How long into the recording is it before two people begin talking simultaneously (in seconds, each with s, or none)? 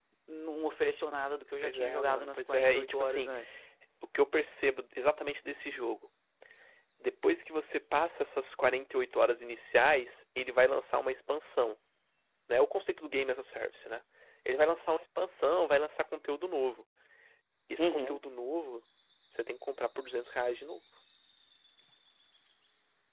1.6 s